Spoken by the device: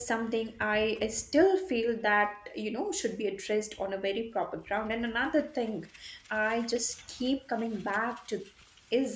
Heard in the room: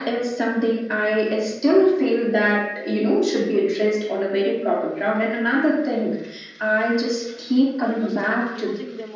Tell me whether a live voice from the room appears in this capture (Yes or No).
Yes